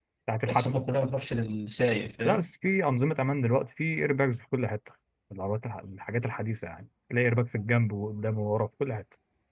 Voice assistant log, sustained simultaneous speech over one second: none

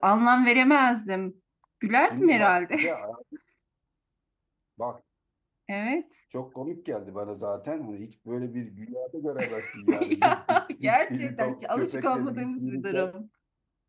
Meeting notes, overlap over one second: present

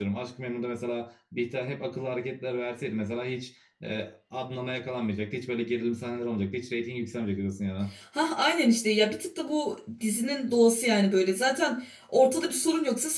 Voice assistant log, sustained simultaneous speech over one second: none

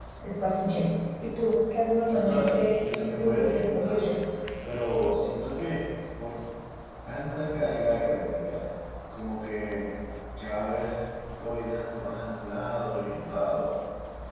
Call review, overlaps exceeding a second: present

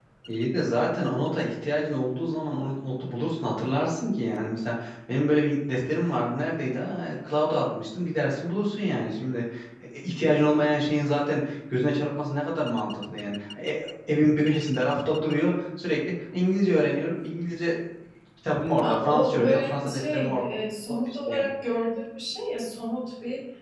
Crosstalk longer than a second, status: present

